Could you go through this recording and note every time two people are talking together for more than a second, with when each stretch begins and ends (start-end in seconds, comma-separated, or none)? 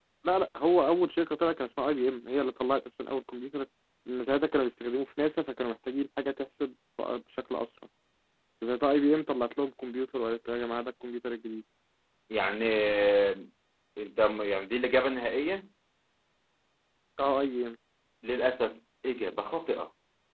none